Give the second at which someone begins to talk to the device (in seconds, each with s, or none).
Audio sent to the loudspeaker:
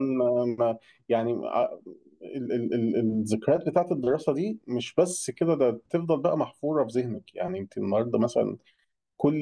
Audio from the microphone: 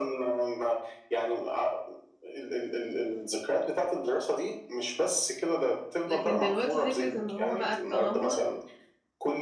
6.1 s